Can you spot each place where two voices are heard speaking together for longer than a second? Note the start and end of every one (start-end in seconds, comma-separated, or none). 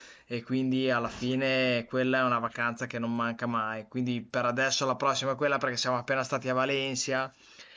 none